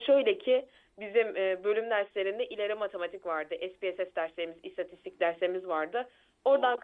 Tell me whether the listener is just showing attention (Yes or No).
Yes